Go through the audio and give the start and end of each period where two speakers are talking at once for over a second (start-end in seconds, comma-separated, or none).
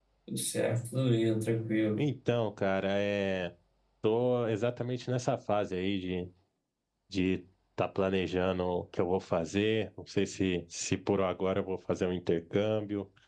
none